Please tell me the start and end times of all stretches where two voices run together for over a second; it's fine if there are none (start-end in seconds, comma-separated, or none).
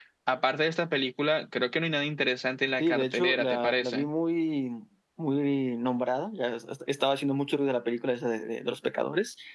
2.8-4.1